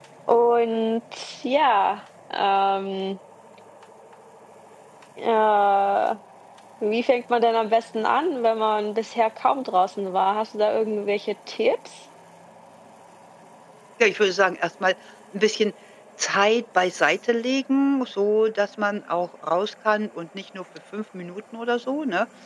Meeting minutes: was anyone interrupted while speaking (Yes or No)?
No